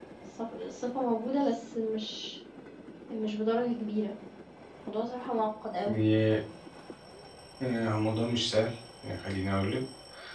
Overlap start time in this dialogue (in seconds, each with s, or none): none